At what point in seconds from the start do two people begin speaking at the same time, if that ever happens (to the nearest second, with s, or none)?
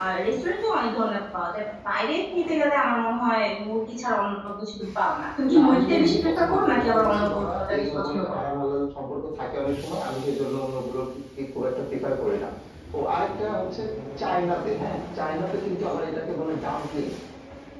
5 s